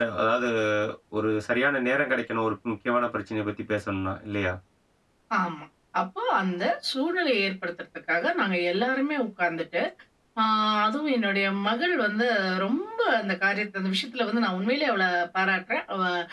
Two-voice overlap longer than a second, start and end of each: none

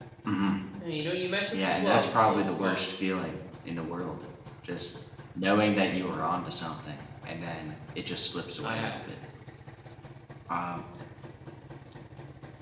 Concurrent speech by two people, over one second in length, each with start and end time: 1.5-2.9

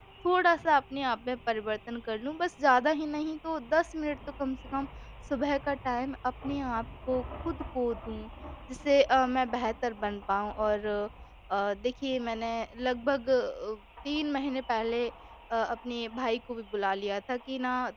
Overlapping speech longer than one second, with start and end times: none

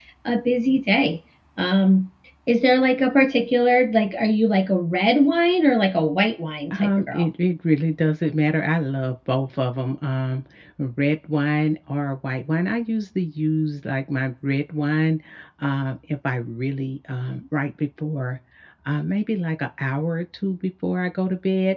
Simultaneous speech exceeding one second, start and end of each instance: none

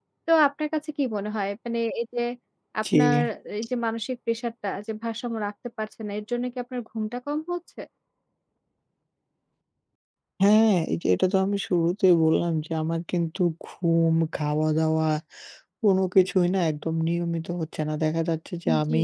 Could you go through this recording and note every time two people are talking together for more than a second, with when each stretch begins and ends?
none

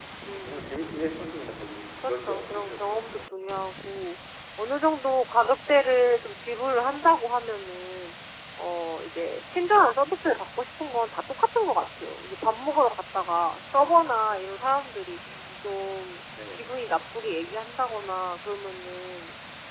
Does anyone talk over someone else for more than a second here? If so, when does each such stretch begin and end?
2.0-3.3

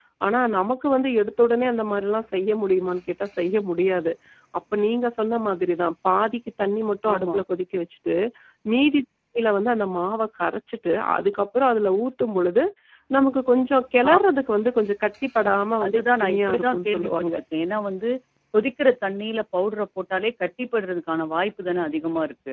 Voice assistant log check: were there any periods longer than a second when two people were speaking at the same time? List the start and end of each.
15.9-17.4

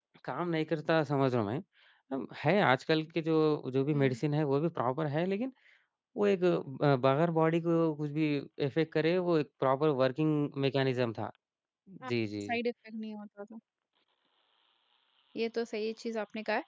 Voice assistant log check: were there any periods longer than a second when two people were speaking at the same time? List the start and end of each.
none

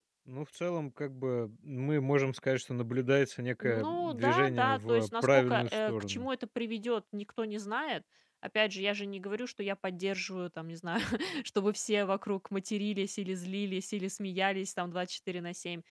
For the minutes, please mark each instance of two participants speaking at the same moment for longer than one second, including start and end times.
3.6-6.3

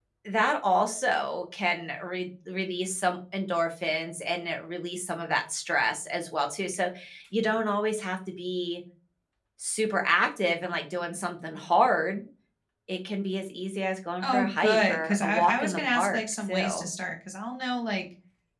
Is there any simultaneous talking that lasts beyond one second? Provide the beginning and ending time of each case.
14.2-16.9

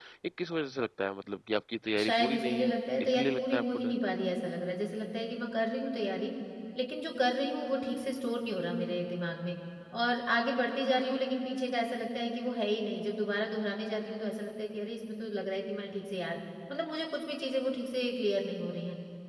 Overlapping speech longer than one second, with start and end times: 2.0-3.9

